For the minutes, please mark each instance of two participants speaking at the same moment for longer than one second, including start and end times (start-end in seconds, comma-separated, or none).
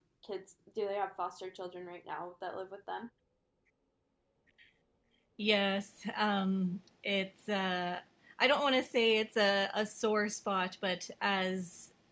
none